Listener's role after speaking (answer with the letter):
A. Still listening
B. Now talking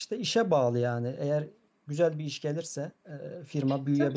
B